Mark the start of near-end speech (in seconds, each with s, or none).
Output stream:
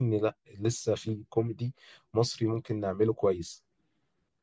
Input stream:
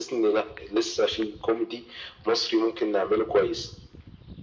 none